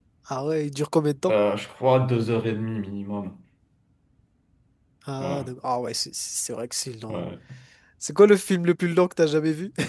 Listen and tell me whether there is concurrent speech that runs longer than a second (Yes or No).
No